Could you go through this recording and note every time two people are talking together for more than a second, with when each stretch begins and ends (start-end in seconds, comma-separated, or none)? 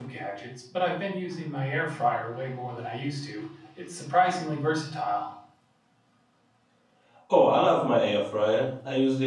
none